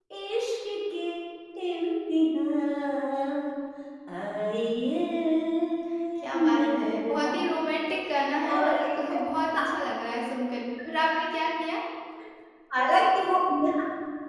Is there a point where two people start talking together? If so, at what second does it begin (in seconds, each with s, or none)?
6.2 s